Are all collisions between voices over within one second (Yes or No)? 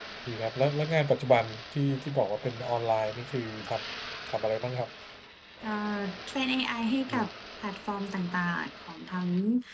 Yes